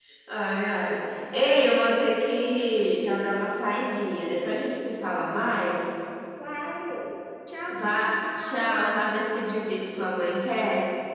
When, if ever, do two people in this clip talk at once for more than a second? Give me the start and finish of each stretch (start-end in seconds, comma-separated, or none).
7.7-8.9